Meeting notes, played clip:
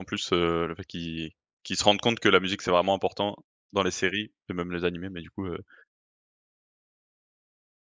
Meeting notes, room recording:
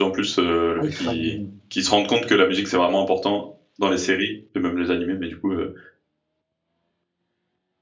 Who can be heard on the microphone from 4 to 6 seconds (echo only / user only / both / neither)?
echo only